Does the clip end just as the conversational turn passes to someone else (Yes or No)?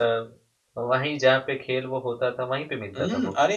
Yes